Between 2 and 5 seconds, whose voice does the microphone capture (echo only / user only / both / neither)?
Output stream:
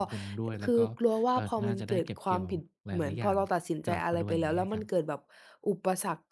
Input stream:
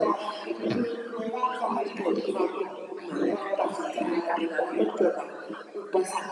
echo only